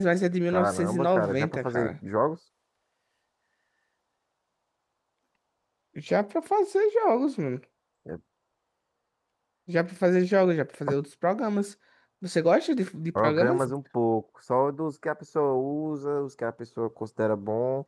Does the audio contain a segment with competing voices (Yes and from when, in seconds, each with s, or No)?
Yes, from 0.5 s